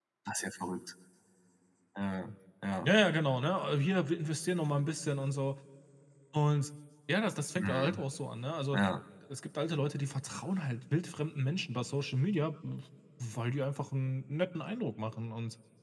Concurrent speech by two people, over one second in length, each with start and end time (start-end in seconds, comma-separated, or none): none